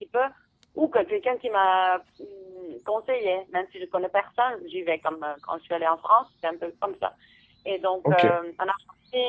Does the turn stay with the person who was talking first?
Yes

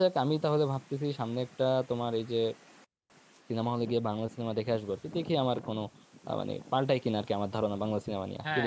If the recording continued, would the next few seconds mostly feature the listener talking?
Yes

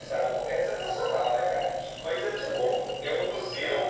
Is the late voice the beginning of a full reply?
No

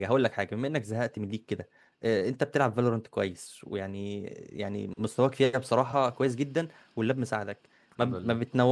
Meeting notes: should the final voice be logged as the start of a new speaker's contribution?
No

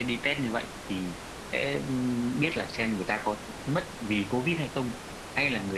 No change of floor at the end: Yes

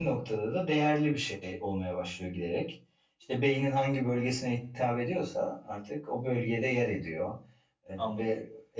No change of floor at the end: Yes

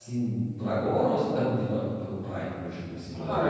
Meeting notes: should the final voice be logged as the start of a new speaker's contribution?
Yes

